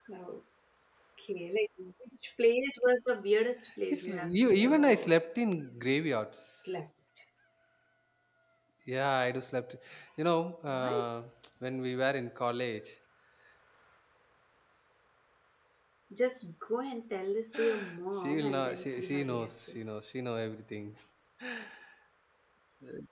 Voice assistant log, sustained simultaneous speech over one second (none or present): present